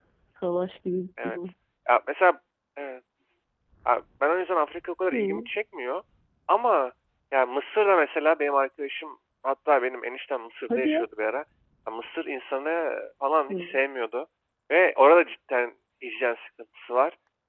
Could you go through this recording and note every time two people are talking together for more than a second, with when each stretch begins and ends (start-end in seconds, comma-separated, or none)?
none